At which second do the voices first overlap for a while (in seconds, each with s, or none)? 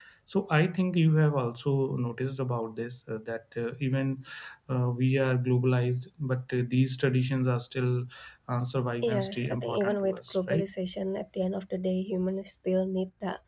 9.0 s